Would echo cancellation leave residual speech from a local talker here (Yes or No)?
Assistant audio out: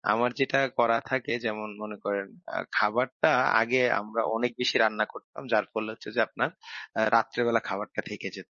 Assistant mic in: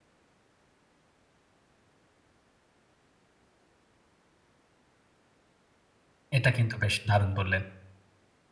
Yes